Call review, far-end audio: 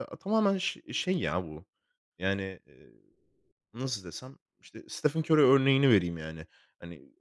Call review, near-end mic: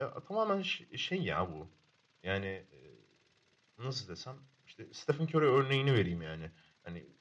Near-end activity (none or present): none